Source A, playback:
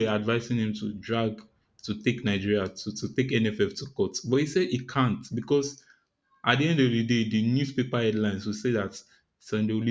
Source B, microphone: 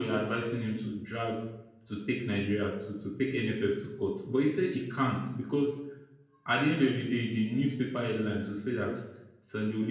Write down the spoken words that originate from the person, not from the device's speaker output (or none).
none